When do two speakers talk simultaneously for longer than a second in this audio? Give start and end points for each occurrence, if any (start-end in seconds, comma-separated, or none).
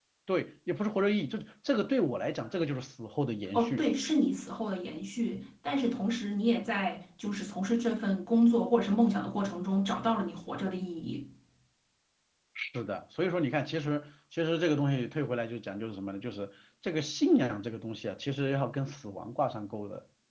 none